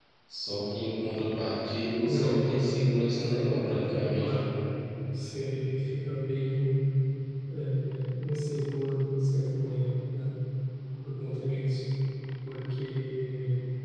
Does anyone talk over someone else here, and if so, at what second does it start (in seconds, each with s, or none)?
2.0 s